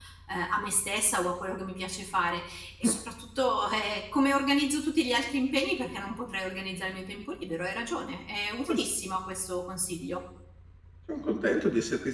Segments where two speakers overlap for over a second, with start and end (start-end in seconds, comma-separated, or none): none